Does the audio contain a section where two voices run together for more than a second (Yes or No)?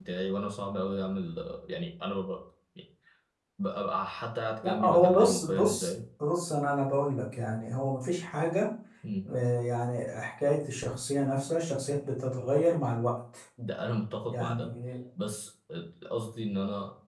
Yes